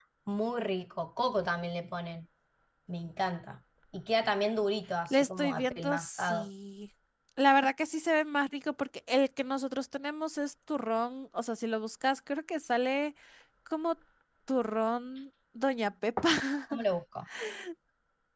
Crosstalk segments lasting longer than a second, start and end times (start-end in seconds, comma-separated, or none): 5.1-6.5